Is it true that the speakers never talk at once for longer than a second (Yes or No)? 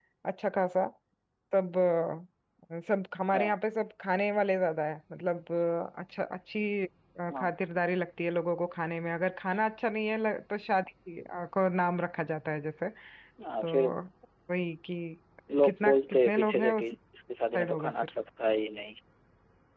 No